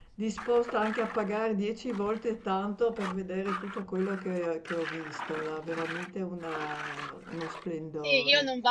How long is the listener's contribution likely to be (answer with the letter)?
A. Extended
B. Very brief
A